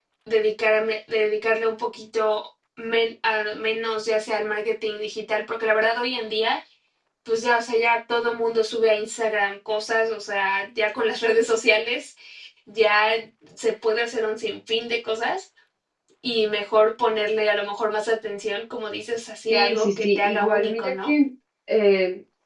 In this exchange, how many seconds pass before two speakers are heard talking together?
19.5 s

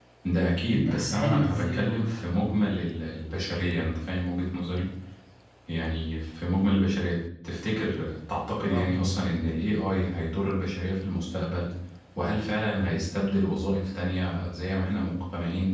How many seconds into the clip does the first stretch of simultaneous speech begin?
0.7 s

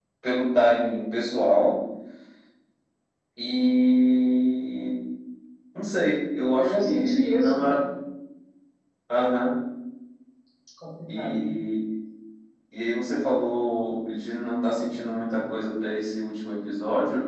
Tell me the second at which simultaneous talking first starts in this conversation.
6.6 s

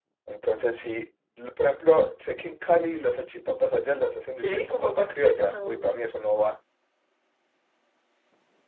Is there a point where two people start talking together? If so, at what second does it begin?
4.4 s

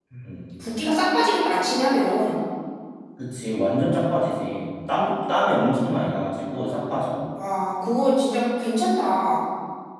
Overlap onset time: none

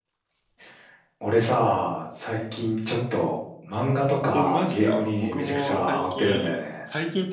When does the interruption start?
4.3 s

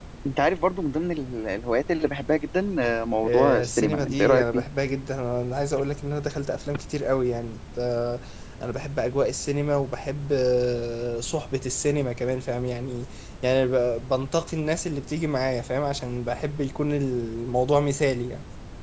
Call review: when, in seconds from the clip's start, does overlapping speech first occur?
3.2 s

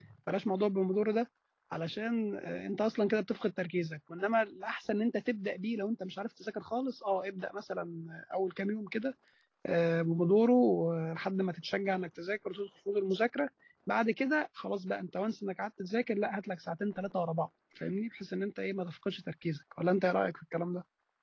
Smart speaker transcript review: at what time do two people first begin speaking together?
none

